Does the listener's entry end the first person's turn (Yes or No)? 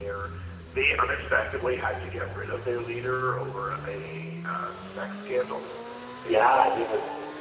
Yes